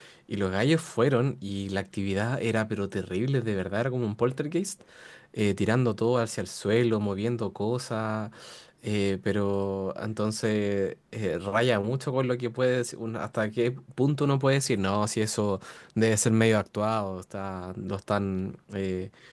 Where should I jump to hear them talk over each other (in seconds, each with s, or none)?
none